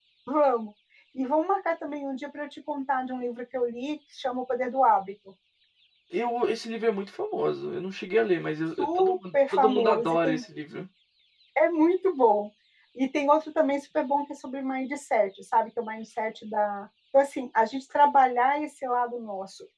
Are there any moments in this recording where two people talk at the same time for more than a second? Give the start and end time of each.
8.8-10.4

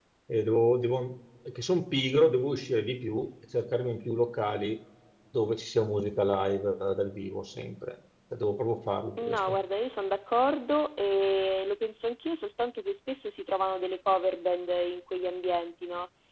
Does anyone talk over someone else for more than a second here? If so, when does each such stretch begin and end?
none

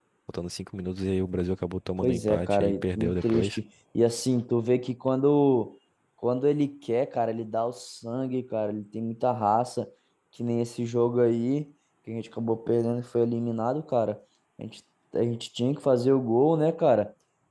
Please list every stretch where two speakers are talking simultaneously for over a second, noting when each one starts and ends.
2.0-3.6

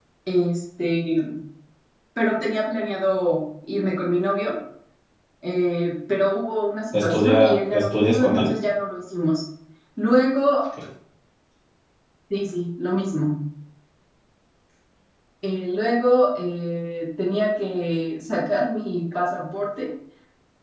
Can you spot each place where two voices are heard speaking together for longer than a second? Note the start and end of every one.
6.9-8.5

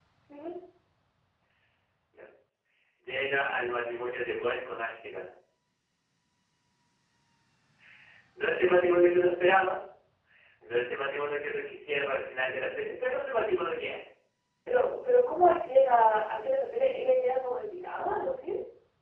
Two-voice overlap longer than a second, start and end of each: none

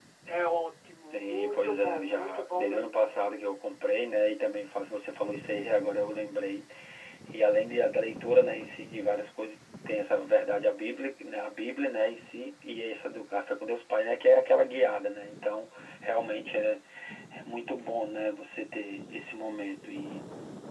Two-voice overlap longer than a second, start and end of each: 1.1-3.1

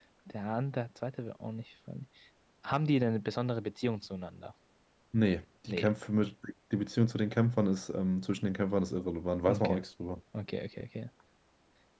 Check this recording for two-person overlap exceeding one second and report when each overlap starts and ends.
none

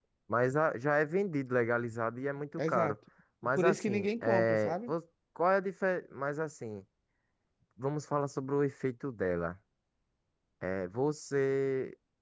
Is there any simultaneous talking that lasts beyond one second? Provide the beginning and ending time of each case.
3.6-4.9

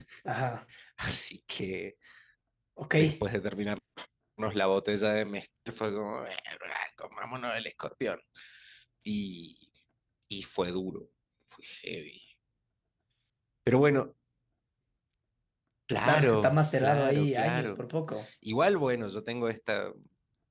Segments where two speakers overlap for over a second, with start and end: 16.1-17.8

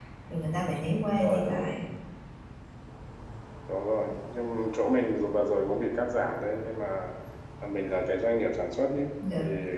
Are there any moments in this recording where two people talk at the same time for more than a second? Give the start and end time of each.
none

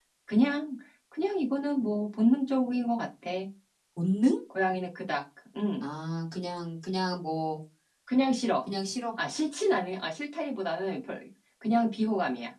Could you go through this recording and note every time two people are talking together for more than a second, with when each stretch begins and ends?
none

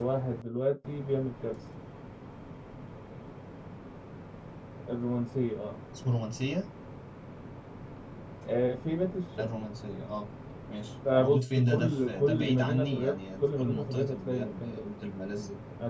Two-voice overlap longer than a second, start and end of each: 11.2-14.8

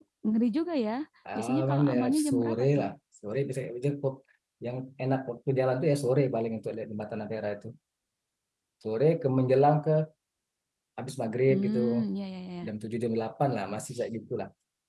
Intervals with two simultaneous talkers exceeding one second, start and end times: 1.4-2.8

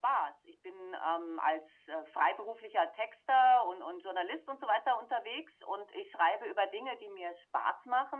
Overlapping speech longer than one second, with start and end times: none

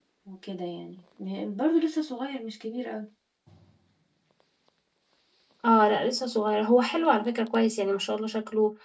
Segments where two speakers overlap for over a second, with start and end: none

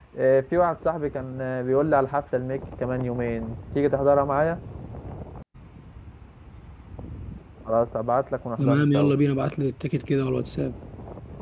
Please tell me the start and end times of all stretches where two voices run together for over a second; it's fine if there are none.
none

